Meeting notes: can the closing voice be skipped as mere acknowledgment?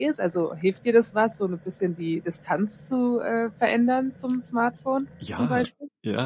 No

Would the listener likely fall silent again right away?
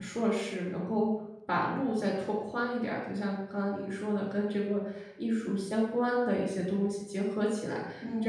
Yes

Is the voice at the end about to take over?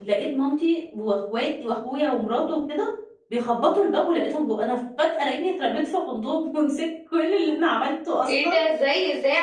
Yes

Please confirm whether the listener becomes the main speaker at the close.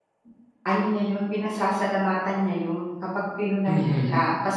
No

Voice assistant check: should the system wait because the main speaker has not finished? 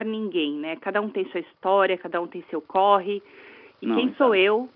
Yes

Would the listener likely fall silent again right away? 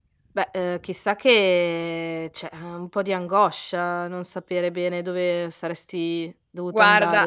No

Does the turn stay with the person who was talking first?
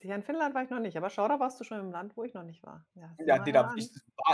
No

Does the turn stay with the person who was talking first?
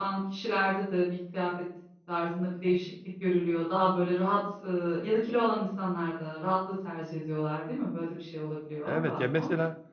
No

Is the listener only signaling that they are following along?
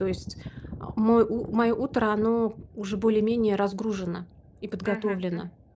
No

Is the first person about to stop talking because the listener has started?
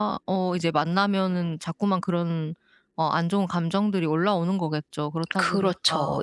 Yes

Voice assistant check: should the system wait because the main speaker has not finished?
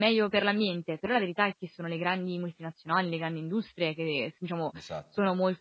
Yes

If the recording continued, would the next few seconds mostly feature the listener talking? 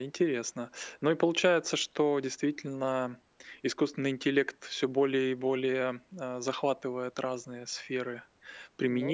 No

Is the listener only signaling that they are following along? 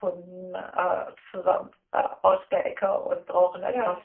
Yes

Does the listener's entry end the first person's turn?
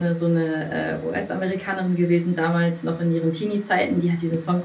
No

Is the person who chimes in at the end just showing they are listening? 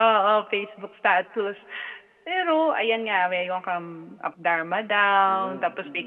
Yes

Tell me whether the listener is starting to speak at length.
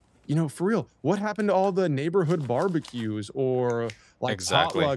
No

